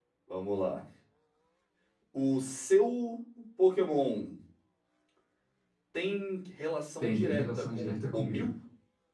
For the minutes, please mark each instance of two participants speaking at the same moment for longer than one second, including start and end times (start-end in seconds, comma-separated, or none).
7.0-8.5